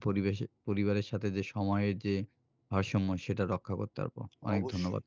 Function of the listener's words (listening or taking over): taking over